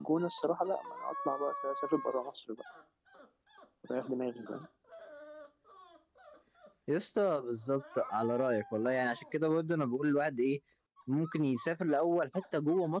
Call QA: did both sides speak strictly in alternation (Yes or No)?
Yes